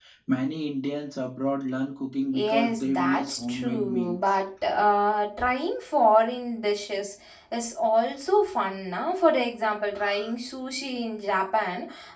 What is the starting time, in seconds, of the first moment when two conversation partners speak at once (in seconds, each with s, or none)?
2.3 s